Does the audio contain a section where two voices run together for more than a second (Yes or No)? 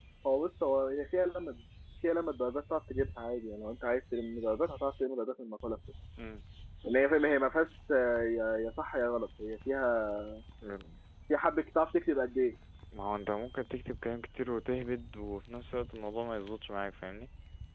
No